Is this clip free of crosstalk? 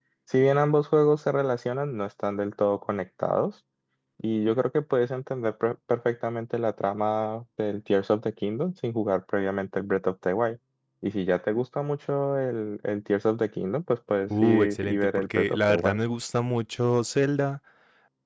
No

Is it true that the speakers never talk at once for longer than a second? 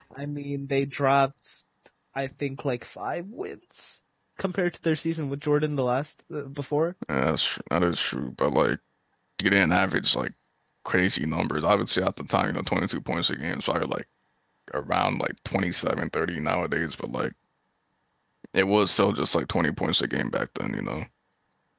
Yes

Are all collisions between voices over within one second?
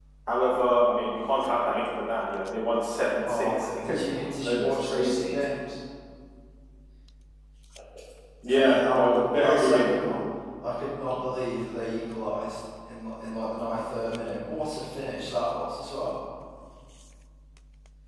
No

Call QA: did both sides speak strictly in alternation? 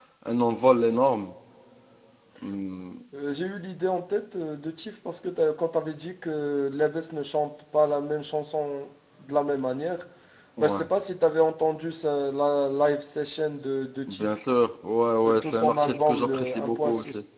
No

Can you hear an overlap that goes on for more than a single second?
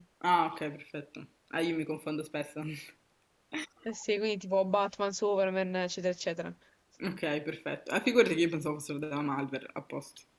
No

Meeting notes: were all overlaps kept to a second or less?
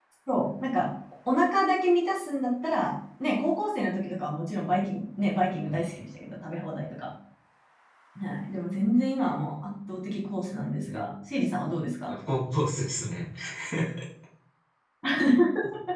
Yes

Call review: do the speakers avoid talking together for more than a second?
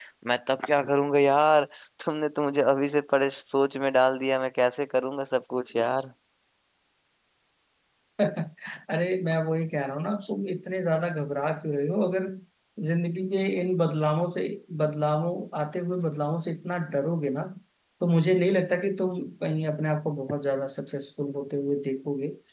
Yes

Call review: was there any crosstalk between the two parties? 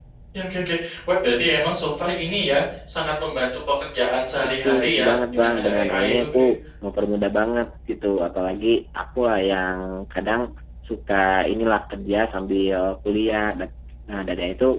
Yes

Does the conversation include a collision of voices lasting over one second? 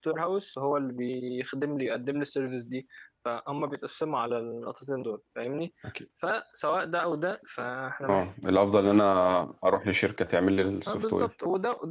No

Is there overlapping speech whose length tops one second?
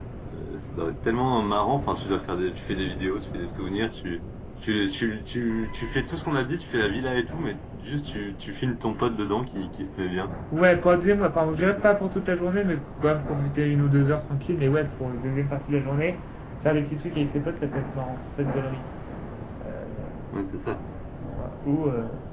No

